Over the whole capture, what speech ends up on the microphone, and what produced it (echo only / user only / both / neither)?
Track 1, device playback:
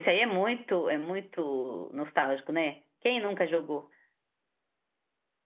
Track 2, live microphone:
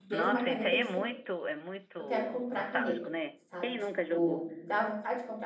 both